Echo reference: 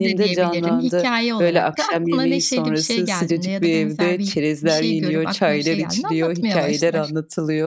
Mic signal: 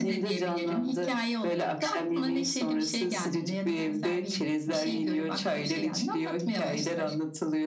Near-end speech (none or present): none